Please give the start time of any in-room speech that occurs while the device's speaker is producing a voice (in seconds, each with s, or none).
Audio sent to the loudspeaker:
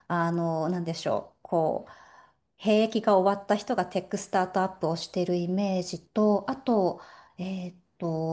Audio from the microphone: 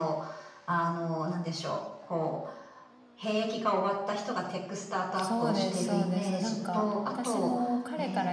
5.2 s